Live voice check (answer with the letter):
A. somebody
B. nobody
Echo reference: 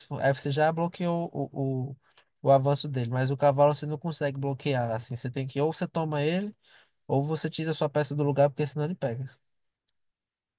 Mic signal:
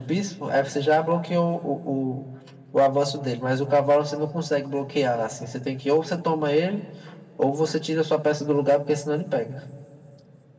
B